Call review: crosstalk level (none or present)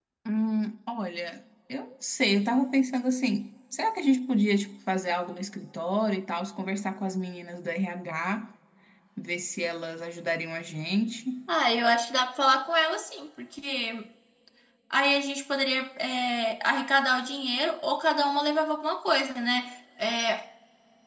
none